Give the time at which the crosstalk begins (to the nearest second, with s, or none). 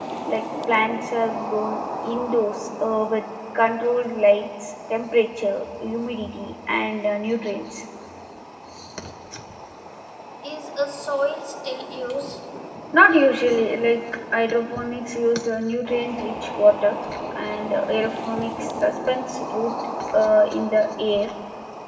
none